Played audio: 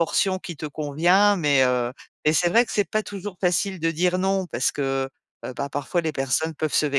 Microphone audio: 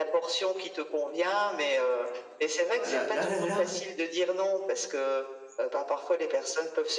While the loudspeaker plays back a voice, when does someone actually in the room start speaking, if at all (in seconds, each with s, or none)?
2.7 s